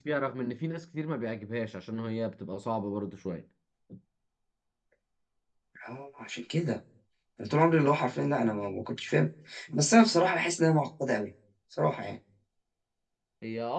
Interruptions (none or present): none